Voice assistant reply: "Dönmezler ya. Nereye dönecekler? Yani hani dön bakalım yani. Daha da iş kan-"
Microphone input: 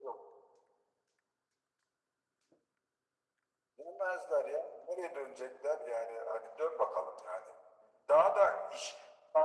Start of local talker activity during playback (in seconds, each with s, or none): none